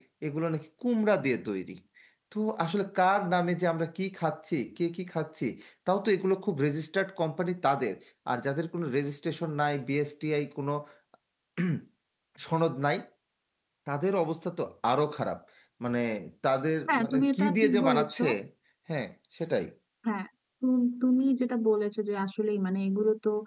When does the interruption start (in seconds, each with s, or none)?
16.9 s